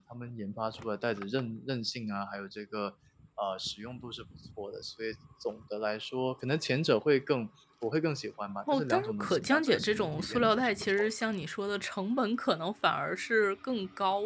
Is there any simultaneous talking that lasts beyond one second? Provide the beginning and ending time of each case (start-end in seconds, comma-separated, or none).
8.7-11.1